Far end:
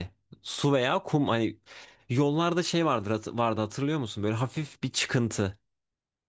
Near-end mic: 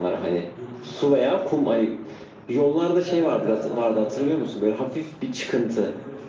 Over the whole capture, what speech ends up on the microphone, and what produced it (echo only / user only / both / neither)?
both